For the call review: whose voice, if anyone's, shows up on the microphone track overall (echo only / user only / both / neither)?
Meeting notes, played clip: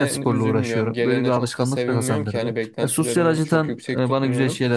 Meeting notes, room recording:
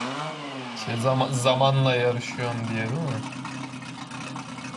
user only